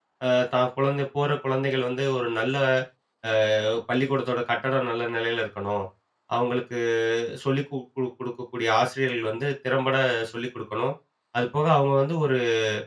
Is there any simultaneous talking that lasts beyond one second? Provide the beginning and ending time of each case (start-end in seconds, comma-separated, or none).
none